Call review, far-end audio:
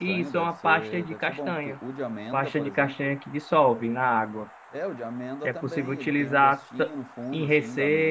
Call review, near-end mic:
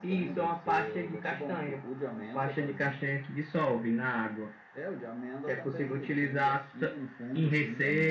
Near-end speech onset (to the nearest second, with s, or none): none